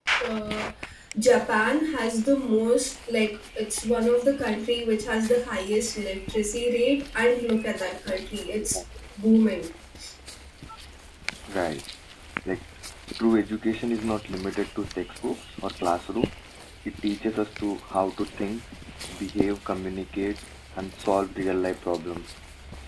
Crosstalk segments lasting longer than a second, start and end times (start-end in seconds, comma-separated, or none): none